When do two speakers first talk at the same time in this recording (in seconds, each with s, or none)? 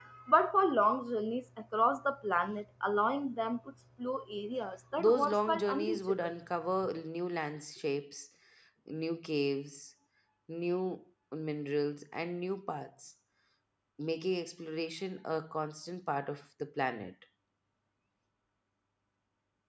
5.0 s